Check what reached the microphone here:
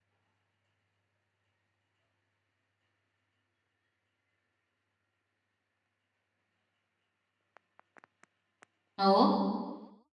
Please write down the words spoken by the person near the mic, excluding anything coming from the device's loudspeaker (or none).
हो.